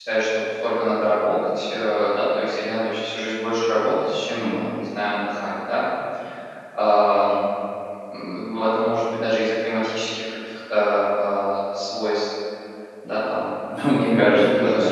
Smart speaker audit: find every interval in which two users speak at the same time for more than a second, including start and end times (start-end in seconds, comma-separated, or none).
none